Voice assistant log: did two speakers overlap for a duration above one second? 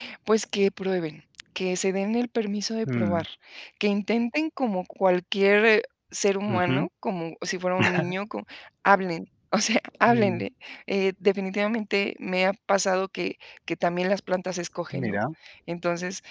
No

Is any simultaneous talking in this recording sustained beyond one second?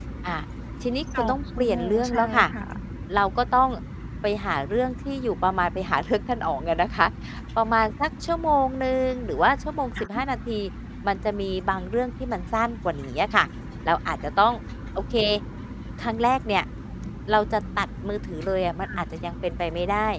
Yes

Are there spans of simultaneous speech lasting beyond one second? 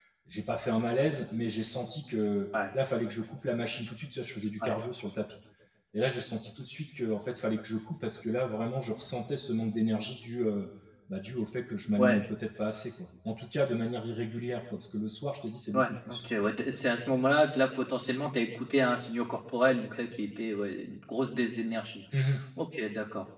No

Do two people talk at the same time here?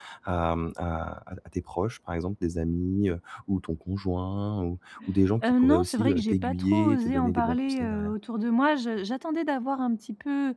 Yes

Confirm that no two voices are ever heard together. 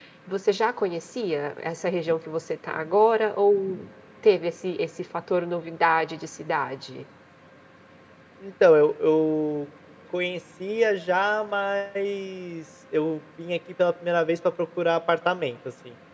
Yes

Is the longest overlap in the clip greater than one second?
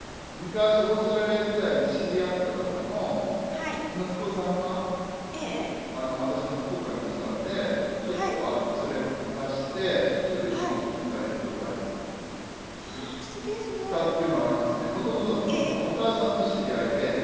No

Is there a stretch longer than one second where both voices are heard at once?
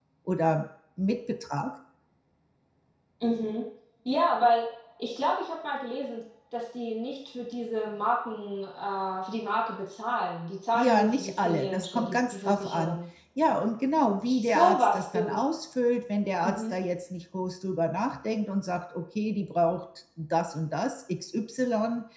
Yes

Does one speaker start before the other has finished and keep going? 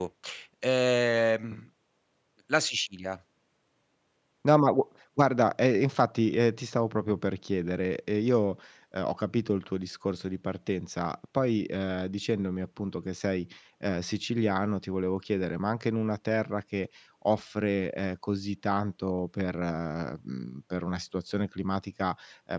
No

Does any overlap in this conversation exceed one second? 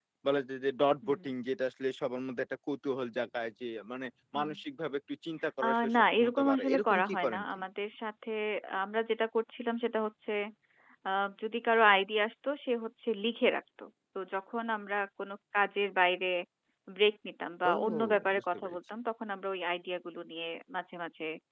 Yes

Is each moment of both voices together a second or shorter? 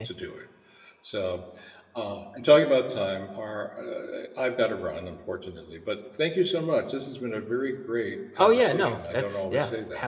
No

